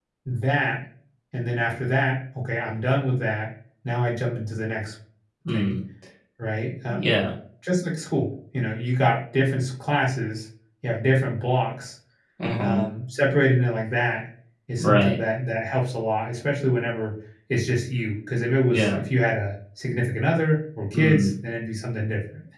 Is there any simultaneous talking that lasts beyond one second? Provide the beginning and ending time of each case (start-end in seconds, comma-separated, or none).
none